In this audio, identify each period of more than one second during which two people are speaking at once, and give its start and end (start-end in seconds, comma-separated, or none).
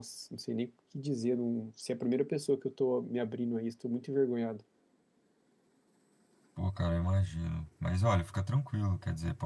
none